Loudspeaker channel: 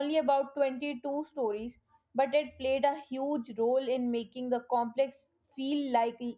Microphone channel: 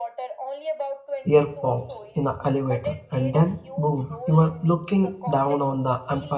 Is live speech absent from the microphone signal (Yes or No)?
No